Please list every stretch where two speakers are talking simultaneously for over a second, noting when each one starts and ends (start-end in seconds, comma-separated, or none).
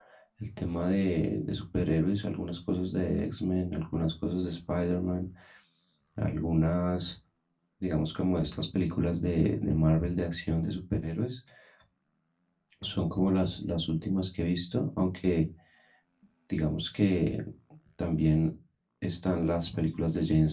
none